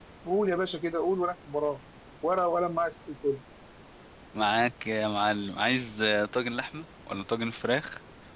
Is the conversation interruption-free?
Yes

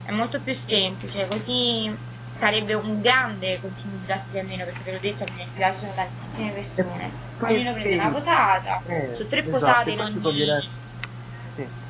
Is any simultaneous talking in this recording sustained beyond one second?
Yes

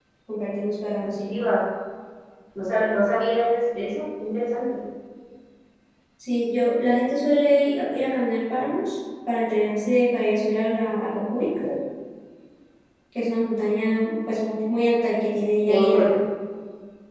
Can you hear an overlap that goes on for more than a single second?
No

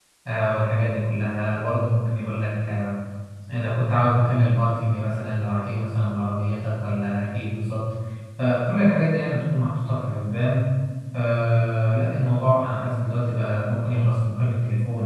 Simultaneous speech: No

